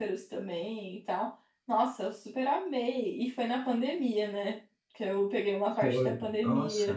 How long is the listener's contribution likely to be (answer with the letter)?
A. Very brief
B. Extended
B